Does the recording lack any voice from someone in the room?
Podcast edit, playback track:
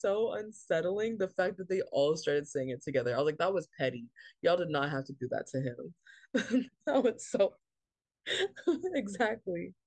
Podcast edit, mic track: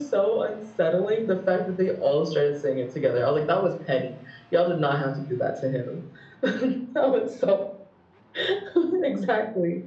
Yes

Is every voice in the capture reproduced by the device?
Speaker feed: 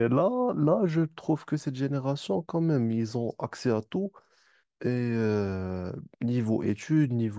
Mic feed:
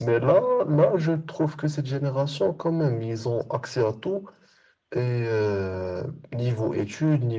Yes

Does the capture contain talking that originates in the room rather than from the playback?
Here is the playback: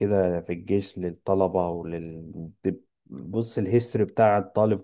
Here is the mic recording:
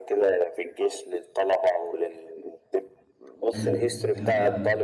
Yes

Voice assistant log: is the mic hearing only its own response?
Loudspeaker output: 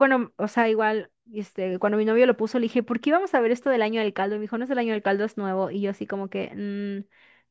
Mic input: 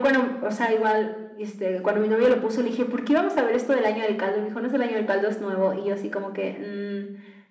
Yes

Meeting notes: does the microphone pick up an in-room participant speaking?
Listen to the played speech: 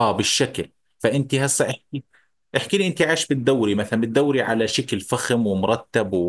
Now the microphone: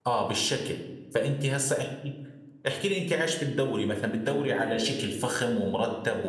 No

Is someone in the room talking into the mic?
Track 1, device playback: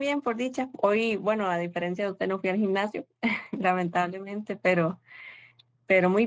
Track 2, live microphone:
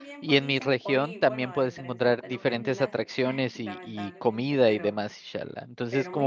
Yes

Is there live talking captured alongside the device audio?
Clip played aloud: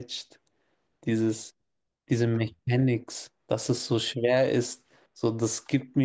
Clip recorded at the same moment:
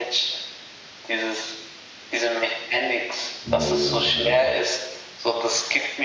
Yes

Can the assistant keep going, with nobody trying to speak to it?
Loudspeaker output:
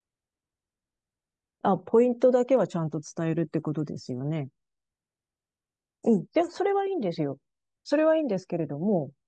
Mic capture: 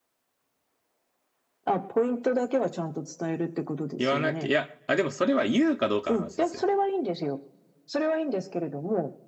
No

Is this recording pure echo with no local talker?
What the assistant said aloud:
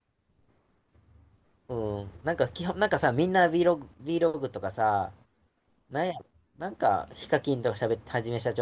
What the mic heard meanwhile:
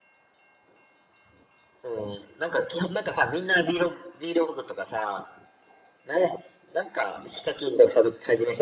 Yes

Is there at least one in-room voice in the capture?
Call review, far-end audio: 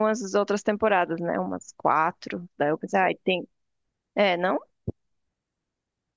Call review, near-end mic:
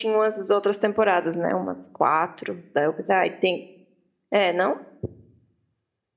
No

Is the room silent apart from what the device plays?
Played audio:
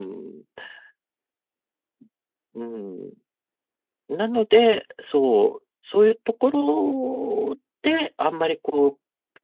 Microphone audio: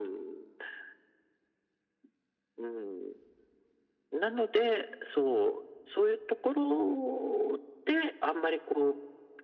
Yes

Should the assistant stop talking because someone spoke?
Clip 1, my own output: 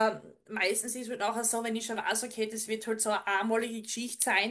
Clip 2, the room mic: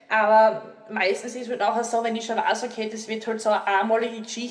No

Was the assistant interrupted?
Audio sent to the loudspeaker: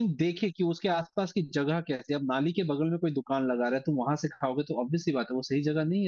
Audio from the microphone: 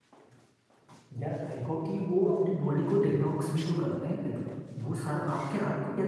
Yes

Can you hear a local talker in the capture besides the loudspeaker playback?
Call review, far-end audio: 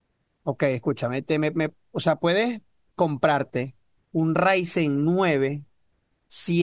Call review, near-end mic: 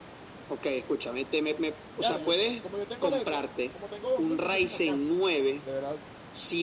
Yes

